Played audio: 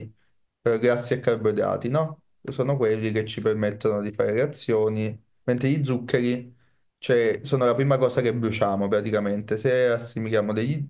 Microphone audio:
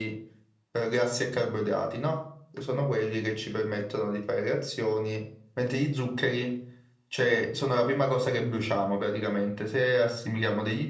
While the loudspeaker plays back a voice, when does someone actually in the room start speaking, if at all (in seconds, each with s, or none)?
none